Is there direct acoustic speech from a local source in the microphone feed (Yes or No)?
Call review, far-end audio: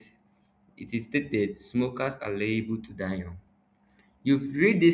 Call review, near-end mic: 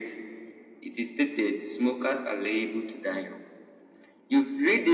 No